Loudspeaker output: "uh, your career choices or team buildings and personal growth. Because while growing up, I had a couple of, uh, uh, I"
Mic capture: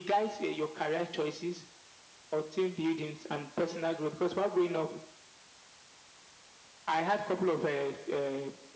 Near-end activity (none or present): none